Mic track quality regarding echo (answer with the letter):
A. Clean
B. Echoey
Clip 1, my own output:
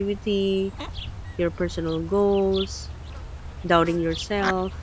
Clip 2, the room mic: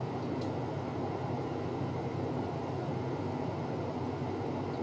A